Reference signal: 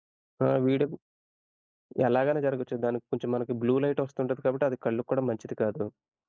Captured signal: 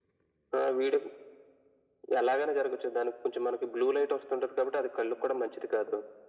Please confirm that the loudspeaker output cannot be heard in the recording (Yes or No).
No